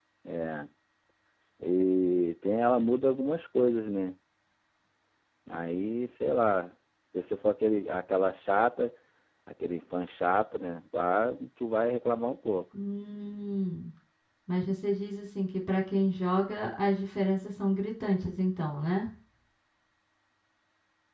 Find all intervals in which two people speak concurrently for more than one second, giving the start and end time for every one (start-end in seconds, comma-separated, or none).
none